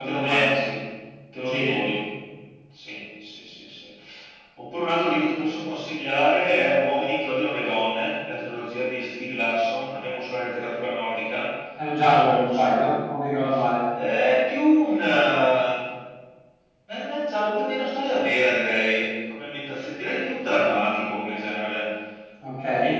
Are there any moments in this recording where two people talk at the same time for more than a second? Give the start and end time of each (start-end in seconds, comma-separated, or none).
none